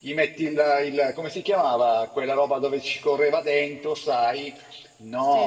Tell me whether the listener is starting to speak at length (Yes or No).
No